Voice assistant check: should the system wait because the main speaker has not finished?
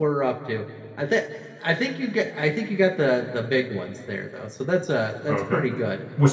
No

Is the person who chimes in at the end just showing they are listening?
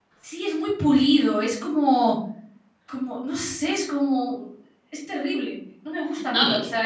Yes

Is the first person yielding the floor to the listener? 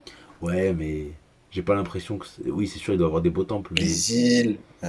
Yes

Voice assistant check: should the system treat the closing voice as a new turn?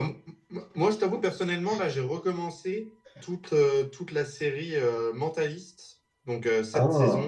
No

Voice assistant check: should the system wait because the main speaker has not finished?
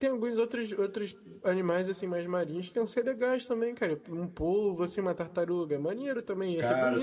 No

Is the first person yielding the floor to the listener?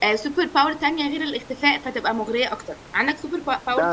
Yes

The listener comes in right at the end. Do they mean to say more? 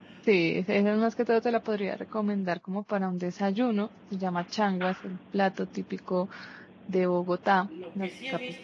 Yes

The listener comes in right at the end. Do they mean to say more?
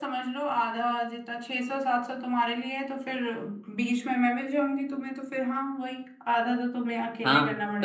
Yes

